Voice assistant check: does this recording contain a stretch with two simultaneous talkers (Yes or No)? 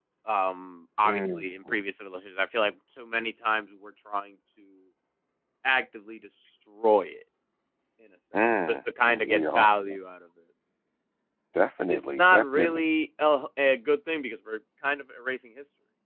Yes